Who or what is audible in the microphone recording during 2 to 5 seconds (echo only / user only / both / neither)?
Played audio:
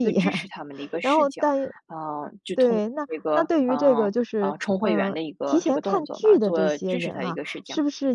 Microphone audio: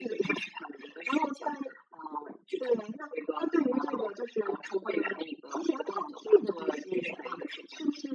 echo only